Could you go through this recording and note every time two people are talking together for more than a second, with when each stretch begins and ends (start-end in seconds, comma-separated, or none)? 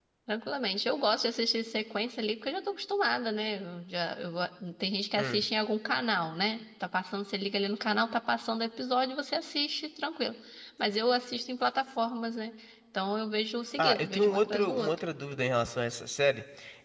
13.8-15.0